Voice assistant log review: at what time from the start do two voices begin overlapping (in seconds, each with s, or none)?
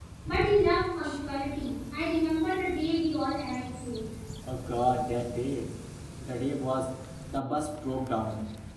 none